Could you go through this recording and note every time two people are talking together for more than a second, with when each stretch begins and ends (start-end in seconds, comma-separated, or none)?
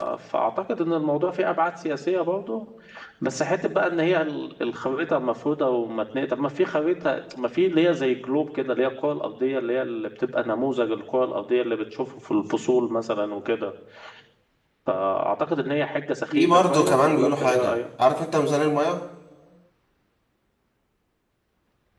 16.3-17.8